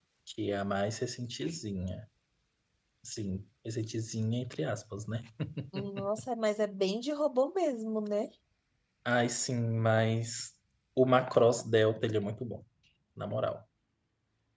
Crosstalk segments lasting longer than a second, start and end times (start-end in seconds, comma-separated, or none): none